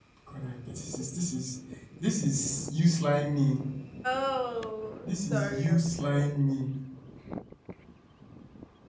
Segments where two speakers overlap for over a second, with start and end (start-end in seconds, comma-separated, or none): 5.0-6.5